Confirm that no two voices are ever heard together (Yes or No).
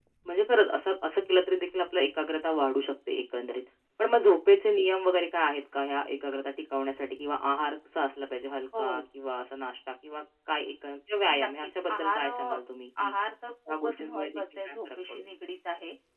No